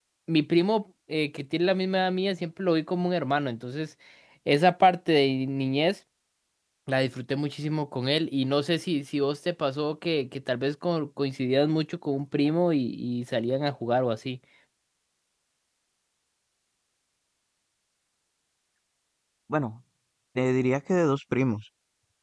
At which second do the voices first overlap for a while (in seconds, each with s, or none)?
none